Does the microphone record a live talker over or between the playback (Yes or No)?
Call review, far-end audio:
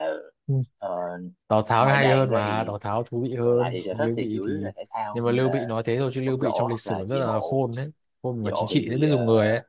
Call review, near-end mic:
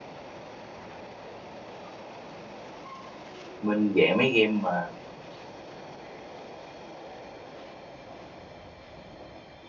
Yes